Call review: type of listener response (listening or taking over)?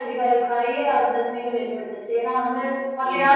listening